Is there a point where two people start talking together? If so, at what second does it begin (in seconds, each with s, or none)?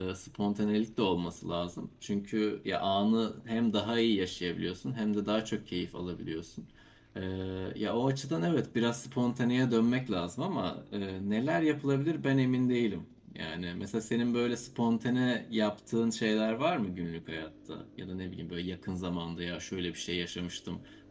none